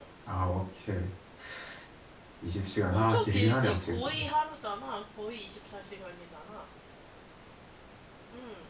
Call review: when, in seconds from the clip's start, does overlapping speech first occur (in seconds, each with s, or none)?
2.9 s